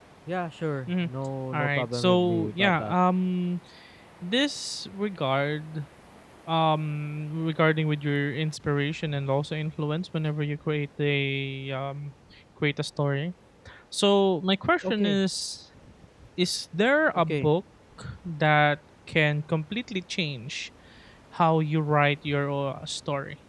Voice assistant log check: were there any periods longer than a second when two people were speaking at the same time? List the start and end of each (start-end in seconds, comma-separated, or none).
1.5-2.9